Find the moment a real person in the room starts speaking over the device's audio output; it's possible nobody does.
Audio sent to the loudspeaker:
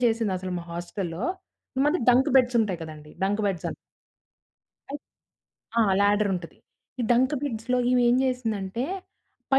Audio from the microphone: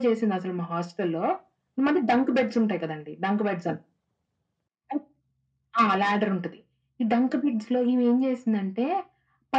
none

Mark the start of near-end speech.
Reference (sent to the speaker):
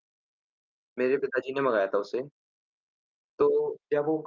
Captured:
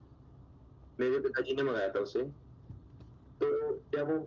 none

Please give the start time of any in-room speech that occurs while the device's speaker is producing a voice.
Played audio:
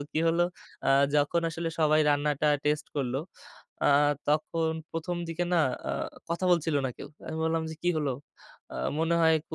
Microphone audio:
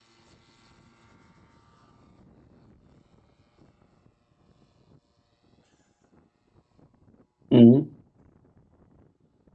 8 s

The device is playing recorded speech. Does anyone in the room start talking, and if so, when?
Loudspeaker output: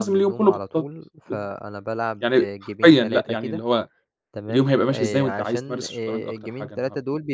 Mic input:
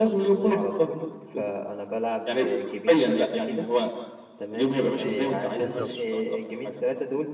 6 s

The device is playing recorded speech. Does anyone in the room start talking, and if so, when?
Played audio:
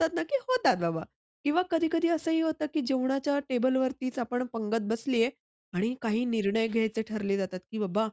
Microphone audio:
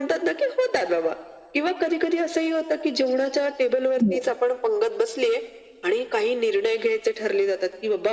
4 s

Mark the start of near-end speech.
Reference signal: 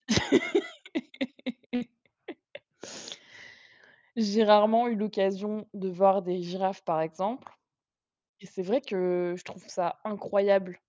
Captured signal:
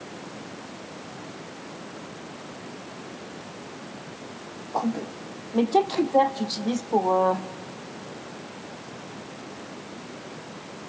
5 s

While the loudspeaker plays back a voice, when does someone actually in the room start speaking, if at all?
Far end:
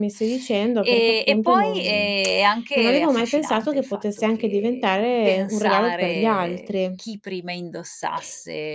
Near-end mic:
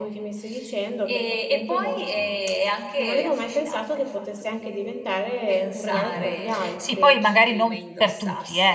6 s

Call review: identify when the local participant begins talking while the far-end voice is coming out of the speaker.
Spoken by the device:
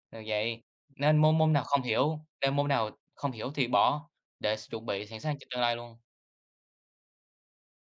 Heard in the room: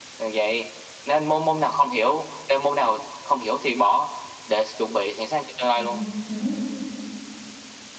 6 s

